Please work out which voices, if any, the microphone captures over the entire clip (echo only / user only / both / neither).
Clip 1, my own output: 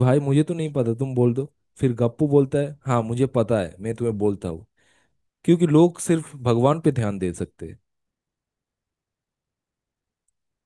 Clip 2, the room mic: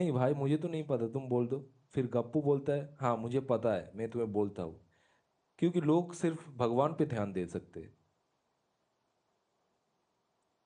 echo only